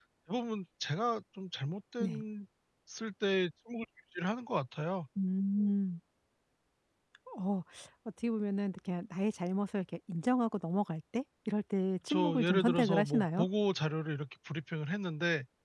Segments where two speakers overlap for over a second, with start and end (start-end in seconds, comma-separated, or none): 12.1-13.4